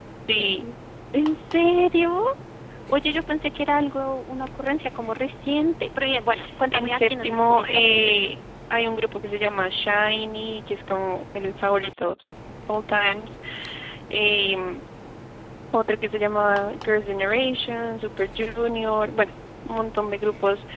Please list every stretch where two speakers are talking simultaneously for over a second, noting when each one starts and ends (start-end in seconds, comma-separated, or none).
6.7-8.4